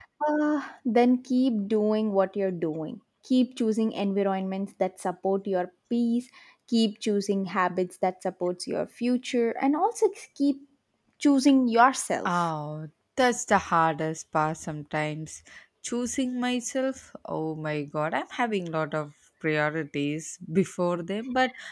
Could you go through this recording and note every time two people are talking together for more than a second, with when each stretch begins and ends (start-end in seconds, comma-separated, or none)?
none